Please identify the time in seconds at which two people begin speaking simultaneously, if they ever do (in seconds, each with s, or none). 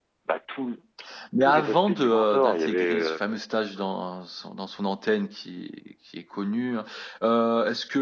1.4 s